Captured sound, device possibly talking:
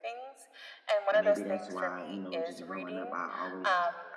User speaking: Yes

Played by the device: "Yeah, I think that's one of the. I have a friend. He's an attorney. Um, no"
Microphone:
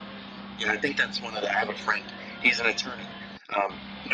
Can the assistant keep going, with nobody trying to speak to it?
Yes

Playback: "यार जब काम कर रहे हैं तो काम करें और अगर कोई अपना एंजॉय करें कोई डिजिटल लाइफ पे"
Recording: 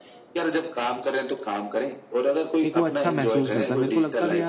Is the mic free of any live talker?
No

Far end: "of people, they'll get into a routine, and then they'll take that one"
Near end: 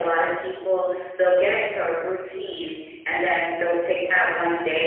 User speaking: Yes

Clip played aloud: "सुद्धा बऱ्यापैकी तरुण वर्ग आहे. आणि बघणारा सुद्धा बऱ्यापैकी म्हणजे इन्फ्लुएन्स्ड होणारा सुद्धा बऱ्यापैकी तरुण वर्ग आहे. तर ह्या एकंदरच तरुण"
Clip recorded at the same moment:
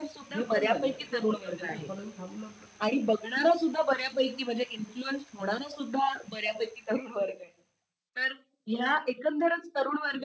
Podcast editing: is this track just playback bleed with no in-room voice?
No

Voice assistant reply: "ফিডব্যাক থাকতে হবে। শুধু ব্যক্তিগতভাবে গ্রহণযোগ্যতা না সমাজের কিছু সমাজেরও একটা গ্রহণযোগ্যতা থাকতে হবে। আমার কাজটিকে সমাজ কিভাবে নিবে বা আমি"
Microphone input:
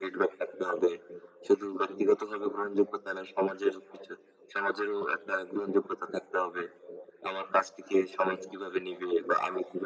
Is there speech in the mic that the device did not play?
No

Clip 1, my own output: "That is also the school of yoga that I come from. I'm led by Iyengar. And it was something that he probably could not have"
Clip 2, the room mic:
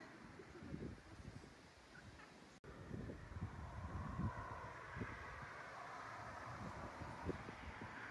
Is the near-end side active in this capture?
No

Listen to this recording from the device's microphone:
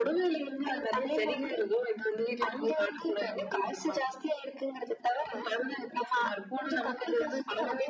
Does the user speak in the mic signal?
No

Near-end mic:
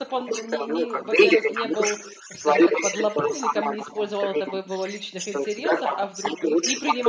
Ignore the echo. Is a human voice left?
Yes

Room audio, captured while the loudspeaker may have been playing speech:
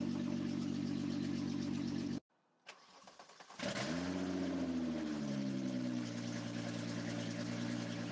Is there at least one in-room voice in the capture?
No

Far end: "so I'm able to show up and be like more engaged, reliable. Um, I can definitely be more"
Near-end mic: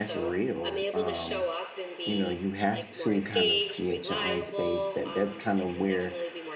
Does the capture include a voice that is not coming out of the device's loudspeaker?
Yes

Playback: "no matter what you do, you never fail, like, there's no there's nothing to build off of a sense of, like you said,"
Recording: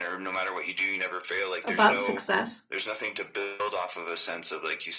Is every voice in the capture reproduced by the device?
No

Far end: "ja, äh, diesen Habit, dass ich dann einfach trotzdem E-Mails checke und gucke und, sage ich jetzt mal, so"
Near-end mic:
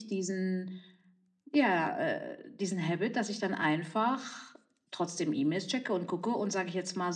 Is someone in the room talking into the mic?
No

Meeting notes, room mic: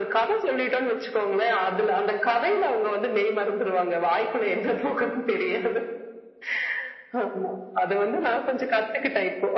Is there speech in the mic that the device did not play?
No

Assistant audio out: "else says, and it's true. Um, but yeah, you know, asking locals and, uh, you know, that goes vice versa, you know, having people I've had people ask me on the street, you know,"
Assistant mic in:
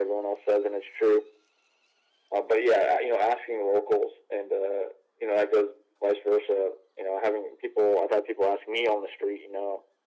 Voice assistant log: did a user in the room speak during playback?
No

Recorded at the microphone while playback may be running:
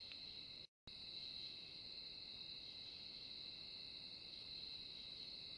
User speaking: No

